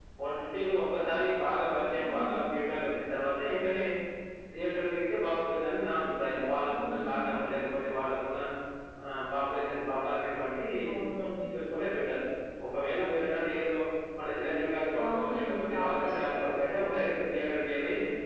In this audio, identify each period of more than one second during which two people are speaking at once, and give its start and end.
15.0-17.0

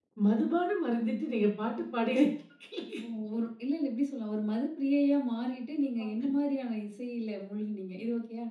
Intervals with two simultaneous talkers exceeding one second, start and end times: none

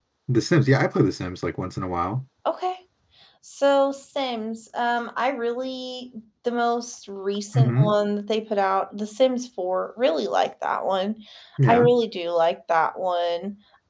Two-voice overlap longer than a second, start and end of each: none

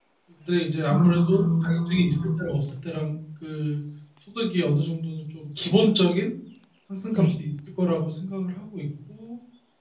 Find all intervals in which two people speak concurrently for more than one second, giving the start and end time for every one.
0.9-2.4

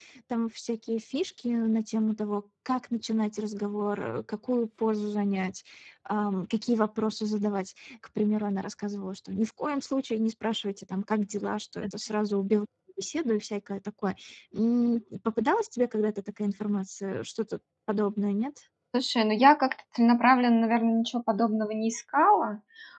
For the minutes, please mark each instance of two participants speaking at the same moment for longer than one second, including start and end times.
none

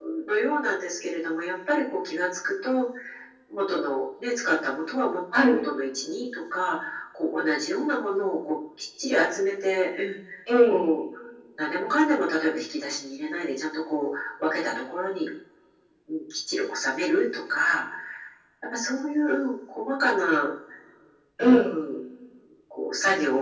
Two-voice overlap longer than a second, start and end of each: none

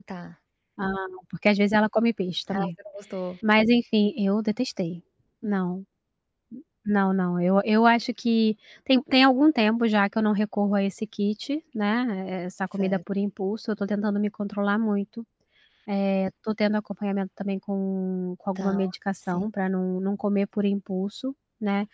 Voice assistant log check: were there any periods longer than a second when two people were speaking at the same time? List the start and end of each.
none

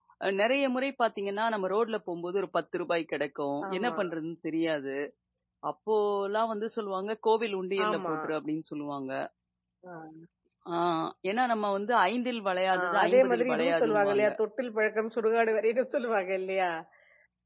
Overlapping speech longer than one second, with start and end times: 12.8-14.3

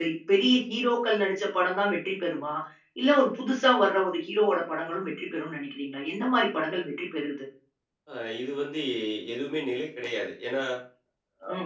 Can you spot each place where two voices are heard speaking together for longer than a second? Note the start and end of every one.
none

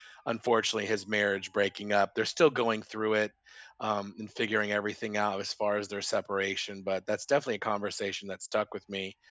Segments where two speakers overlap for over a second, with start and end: none

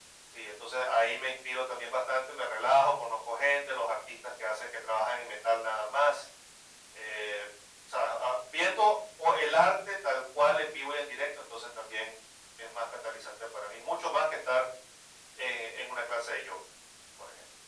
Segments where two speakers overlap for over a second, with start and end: none

